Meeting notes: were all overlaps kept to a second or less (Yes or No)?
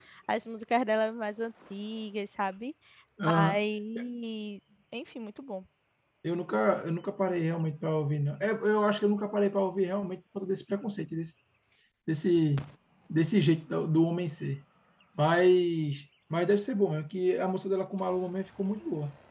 Yes